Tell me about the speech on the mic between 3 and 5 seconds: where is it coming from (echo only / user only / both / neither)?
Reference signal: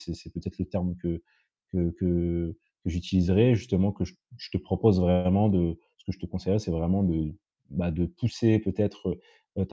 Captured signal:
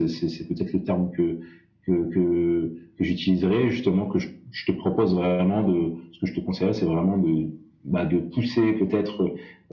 echo only